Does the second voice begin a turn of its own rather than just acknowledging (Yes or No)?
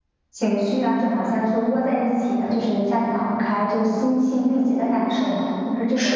Yes